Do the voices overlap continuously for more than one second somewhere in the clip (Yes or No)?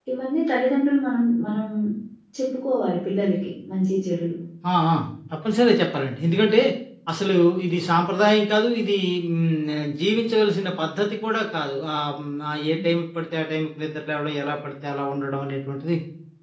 No